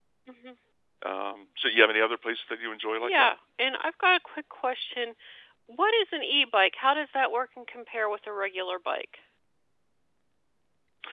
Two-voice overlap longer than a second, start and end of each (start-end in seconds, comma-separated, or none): none